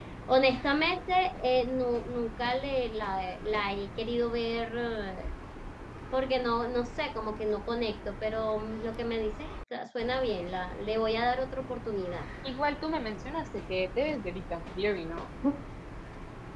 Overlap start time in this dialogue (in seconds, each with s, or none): none